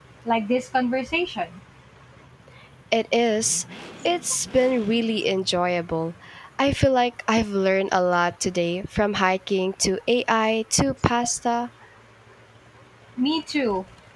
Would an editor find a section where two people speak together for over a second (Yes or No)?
No